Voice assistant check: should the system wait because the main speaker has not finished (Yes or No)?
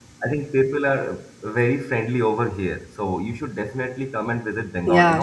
No